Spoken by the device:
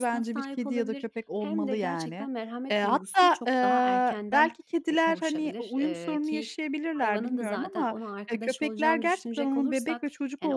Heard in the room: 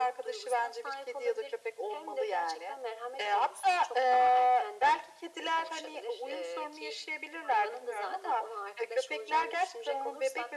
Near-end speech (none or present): none